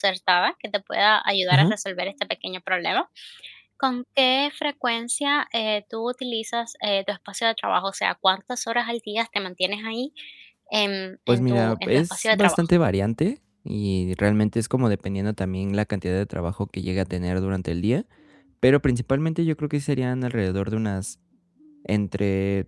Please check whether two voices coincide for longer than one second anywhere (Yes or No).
Yes